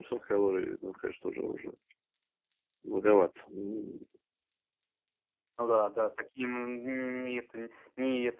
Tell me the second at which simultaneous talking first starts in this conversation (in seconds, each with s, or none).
none